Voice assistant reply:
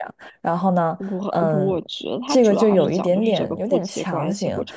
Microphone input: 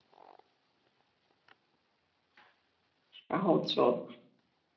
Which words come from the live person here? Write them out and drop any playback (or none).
然后就